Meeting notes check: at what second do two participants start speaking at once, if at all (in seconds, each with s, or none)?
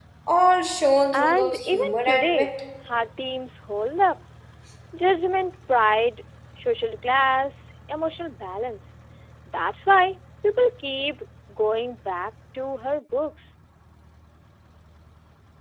1.1 s